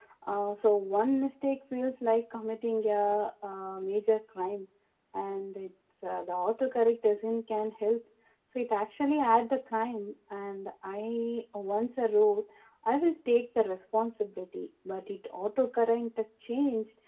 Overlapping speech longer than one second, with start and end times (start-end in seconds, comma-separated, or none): none